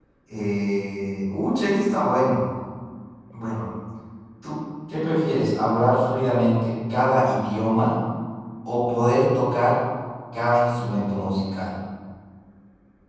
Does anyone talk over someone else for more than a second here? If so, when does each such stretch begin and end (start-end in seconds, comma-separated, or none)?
none